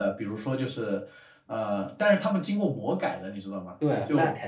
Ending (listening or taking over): taking over